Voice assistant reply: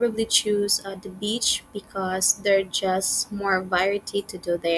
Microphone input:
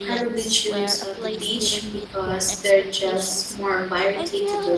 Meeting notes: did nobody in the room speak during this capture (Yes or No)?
No